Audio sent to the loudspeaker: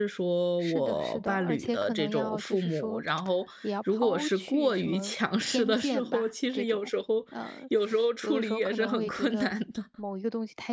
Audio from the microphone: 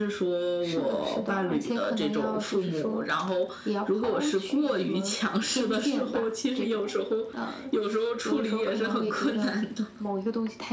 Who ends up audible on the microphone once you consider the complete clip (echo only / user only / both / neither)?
echo only